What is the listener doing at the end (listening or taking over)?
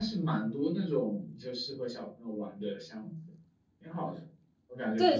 taking over